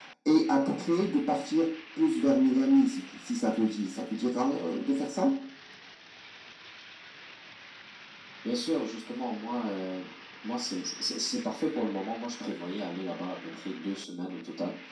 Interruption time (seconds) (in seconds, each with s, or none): none